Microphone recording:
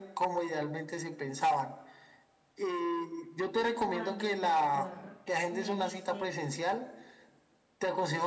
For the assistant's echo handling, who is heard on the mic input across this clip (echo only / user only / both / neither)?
both